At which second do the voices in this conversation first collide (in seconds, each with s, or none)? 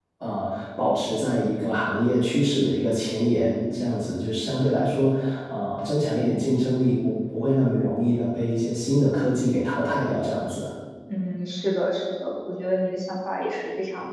none